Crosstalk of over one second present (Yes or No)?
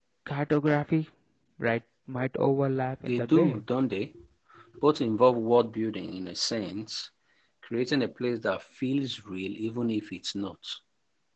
No